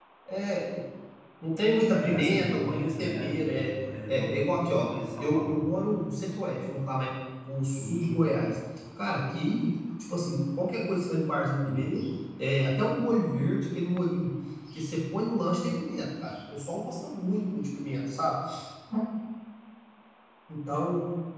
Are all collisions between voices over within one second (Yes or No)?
No